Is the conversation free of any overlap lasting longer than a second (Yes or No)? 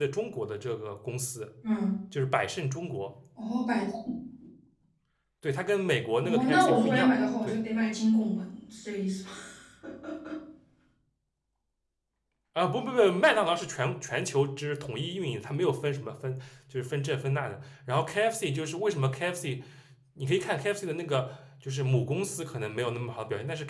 No